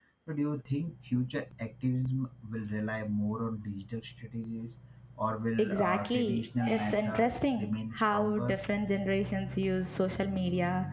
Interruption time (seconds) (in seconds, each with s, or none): 5.6 s